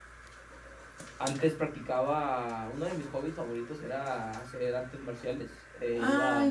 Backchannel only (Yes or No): No